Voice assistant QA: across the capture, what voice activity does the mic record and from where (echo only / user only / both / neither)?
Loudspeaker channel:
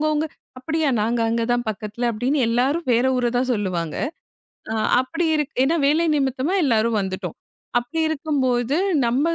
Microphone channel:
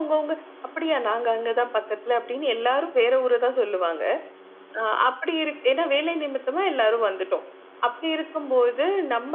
echo only